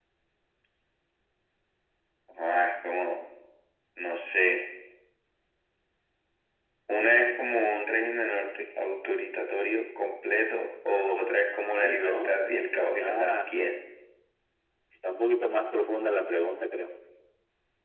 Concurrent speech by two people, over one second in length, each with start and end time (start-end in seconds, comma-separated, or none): 11.8-13.5